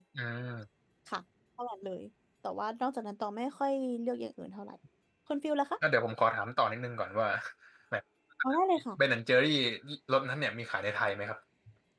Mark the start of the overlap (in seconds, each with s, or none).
none